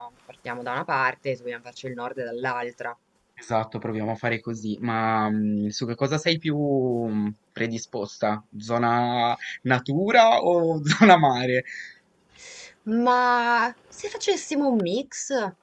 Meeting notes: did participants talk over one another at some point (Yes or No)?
No